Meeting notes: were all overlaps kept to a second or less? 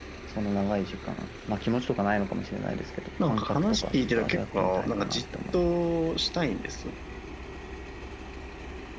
No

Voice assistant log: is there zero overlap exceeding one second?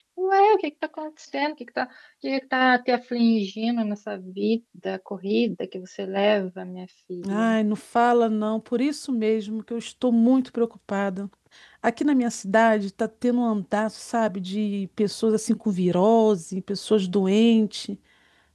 Yes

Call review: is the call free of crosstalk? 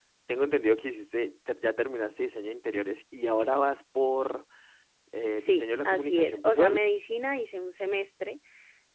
No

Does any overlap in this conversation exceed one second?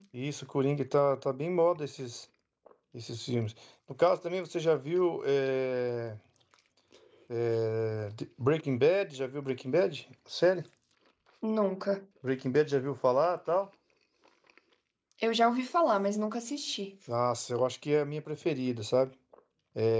No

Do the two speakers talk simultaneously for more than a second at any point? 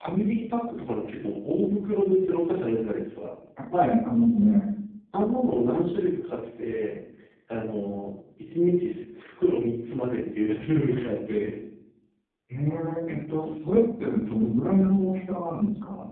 No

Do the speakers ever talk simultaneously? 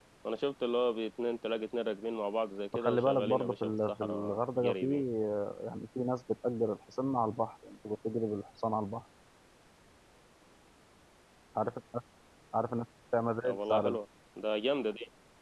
Yes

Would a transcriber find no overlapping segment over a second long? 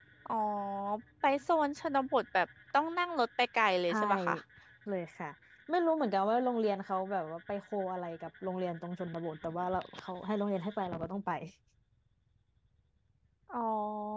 Yes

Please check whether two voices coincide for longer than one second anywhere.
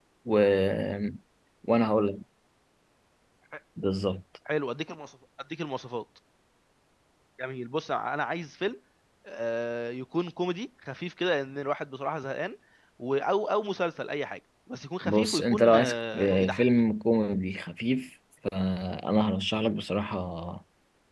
Yes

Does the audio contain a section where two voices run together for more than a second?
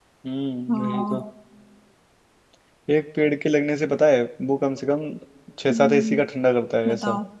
No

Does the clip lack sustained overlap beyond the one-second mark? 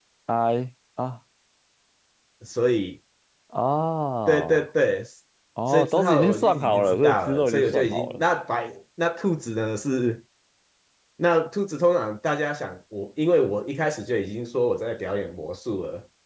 No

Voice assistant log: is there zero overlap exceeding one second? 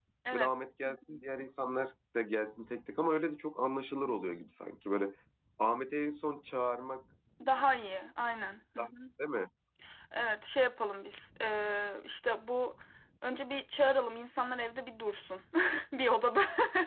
Yes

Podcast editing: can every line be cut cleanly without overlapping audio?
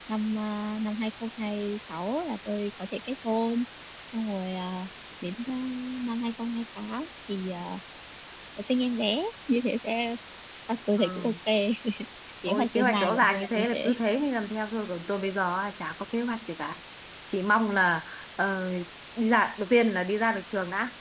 No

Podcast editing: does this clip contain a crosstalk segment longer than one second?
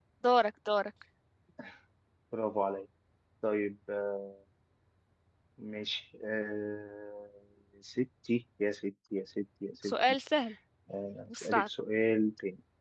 No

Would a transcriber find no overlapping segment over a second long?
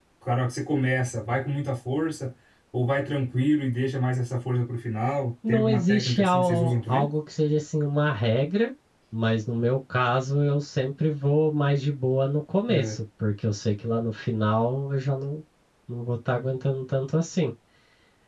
No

